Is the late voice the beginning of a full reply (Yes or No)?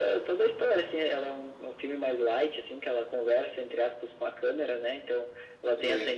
No